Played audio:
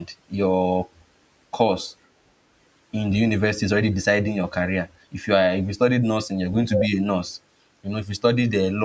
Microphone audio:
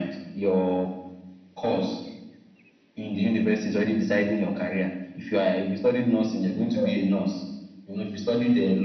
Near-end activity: none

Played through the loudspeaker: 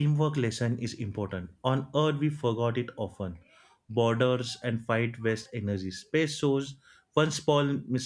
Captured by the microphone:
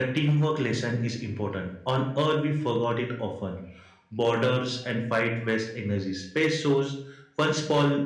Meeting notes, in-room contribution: none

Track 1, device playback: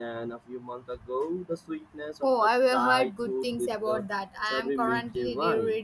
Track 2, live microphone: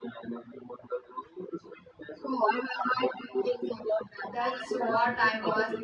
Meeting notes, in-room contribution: present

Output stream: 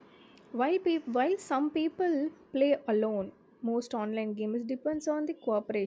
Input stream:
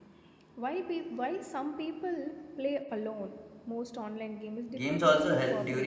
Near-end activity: present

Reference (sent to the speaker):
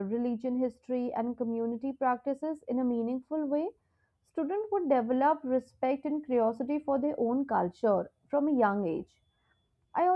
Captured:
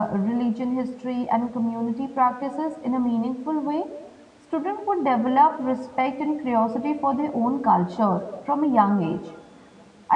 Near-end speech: none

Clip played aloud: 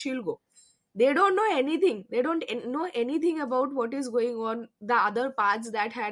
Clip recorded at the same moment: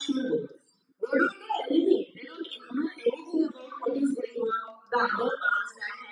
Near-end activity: none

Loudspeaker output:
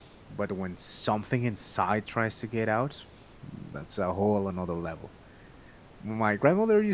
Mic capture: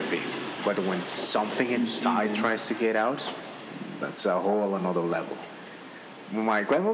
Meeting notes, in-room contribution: present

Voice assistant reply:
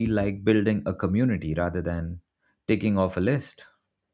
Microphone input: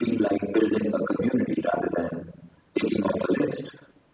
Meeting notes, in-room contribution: none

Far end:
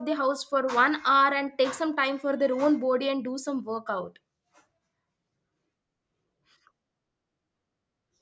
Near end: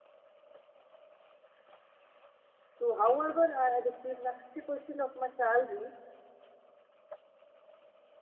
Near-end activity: present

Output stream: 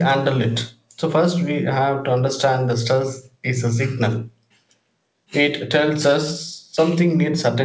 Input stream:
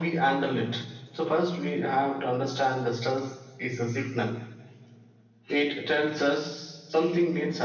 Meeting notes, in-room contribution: none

